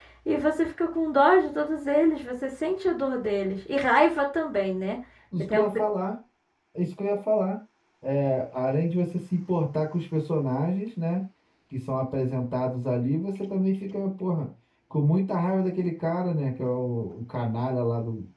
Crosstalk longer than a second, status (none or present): none